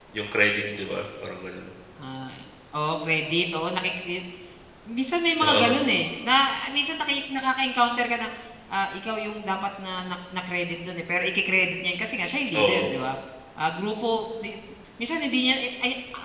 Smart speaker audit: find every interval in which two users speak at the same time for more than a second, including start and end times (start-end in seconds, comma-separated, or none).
none